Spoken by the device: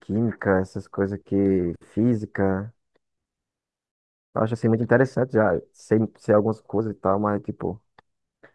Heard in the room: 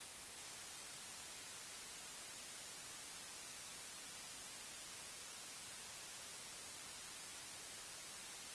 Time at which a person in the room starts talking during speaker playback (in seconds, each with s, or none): none